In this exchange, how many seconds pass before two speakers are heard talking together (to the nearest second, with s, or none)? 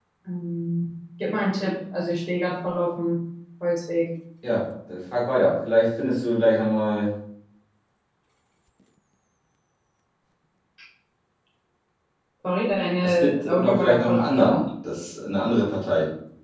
13 s